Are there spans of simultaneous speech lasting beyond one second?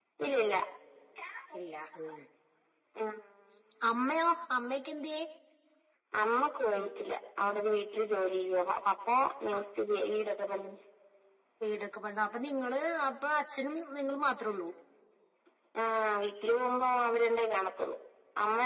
No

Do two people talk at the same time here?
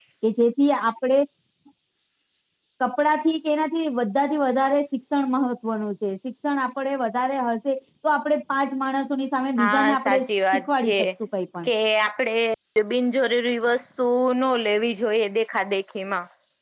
Yes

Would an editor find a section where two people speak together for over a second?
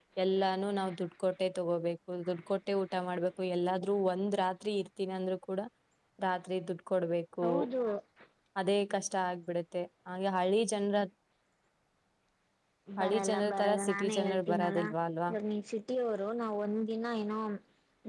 Yes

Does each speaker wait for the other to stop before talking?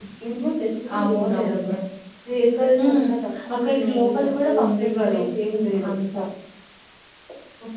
No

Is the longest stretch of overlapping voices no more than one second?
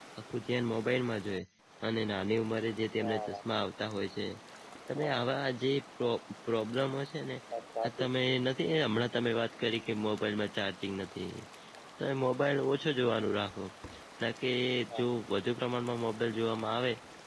Yes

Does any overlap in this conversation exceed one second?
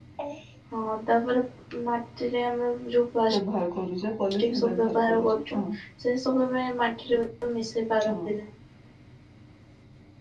Yes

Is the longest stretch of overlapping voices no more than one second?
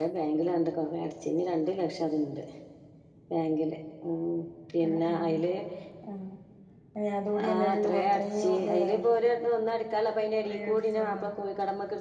No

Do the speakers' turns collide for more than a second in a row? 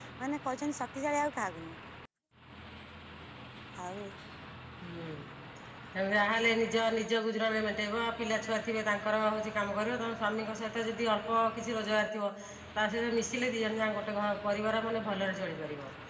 No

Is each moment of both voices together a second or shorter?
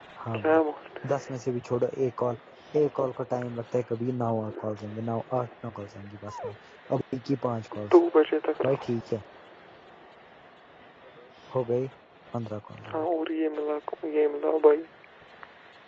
Yes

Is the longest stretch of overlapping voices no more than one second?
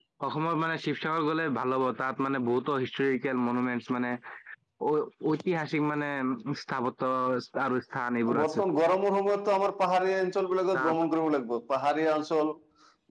Yes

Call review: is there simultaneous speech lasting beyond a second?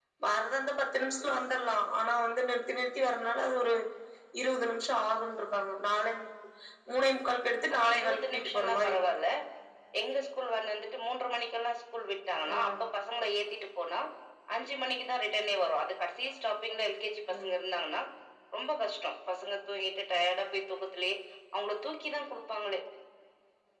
Yes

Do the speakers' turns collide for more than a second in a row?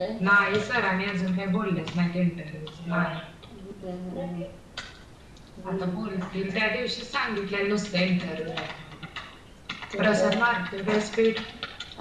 No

